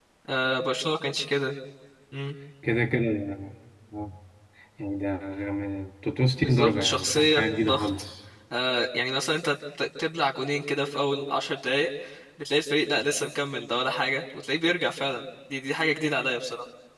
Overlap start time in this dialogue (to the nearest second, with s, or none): 6 s